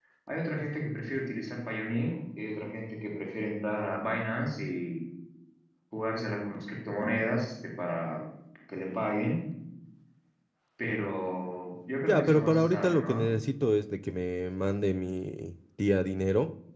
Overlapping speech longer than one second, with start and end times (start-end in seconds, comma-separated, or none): 12.0-13.2